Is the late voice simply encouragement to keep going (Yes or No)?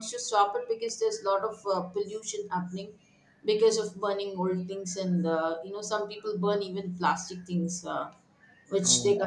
Yes